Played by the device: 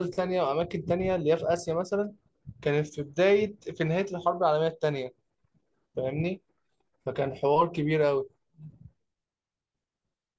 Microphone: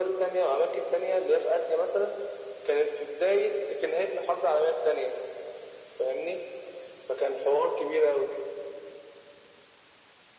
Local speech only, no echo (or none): none